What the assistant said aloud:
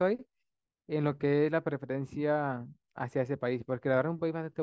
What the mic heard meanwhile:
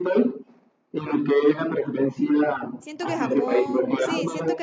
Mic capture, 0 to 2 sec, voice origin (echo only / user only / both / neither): echo only